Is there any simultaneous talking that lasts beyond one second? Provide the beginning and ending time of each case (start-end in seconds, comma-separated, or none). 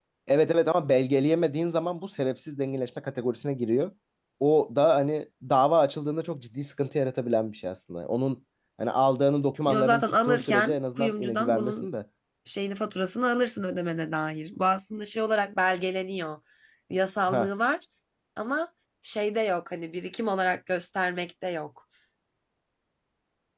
9.7-11.9